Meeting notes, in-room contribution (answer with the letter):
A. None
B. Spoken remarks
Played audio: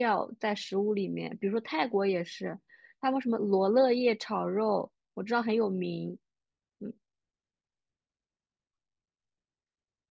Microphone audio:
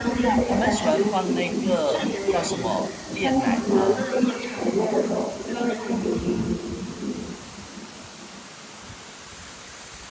B